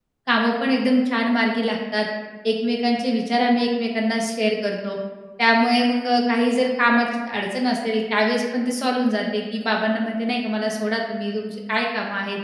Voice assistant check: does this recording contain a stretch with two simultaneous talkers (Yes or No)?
No